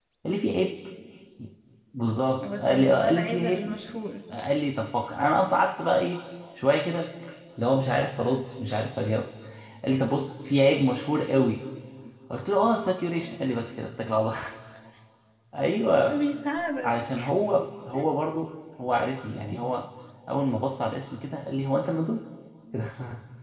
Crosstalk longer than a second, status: present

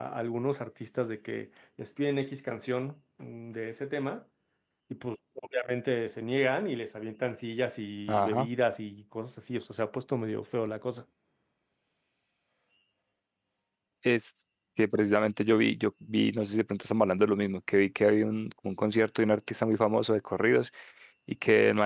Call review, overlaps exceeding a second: none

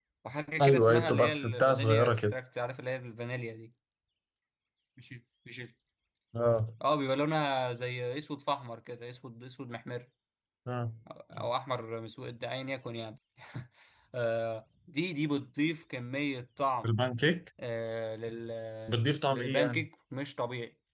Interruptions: present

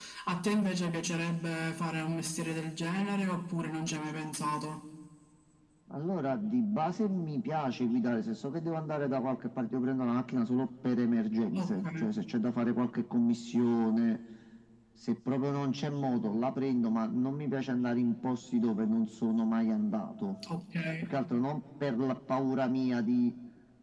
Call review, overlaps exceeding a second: none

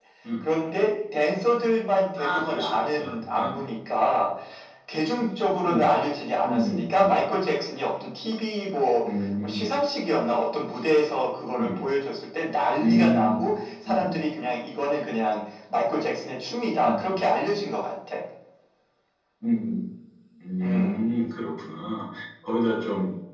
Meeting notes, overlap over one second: present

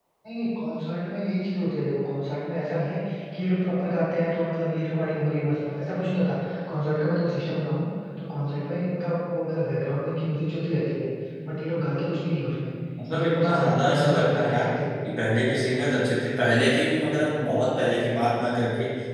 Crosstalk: present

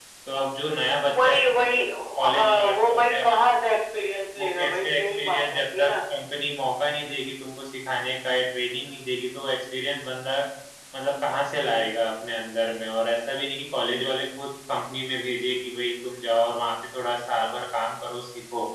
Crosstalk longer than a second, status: present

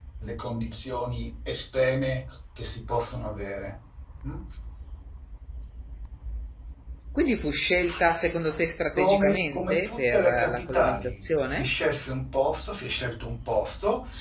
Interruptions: present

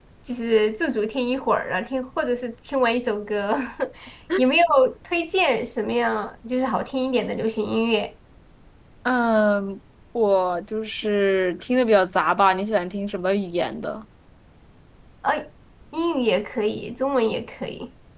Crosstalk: none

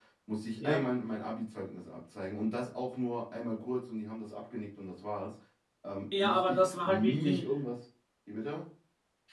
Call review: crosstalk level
present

